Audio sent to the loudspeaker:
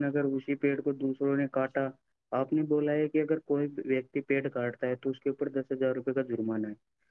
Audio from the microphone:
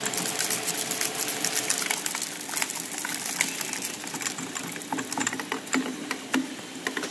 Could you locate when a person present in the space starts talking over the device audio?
none

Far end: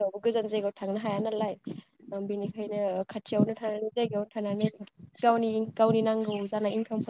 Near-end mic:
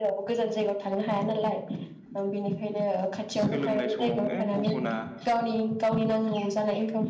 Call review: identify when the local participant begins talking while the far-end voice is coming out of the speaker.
3.4 s

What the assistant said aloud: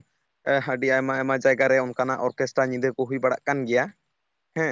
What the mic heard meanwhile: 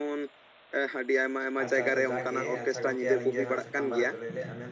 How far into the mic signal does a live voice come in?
1.6 s

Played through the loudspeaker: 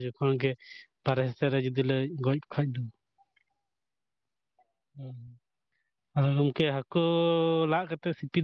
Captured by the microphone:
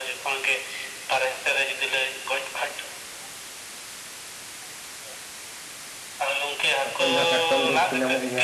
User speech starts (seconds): 6.9 s

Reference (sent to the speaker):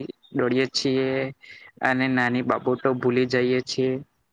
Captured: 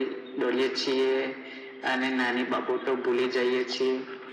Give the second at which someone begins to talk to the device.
none

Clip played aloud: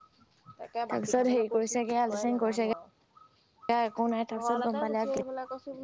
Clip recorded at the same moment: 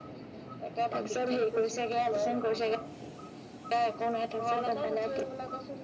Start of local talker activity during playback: none

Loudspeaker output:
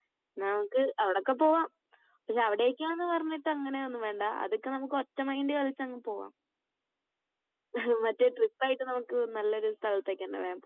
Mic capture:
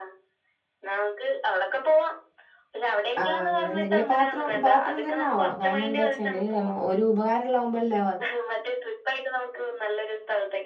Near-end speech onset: 3.2 s

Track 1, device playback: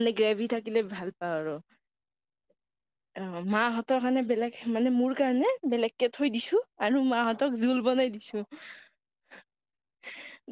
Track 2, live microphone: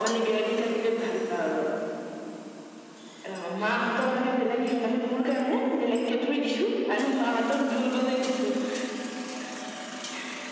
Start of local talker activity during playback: none

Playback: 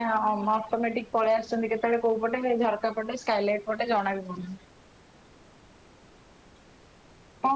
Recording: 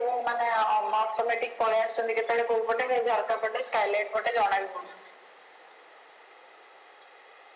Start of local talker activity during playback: none

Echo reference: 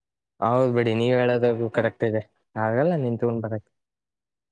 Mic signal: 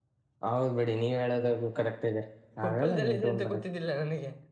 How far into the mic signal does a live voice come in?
2.6 s

